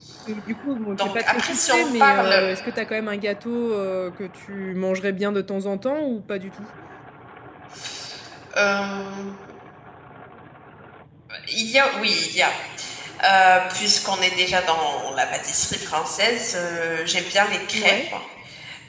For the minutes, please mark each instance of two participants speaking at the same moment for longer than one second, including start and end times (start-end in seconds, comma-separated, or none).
1.0-2.4